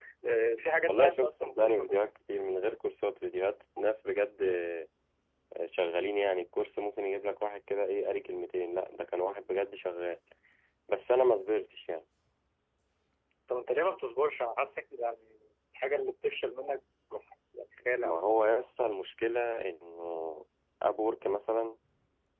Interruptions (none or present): present